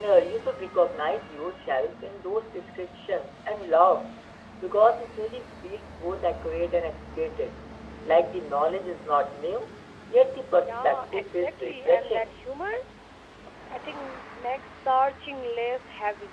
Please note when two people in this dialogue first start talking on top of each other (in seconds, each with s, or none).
10.6 s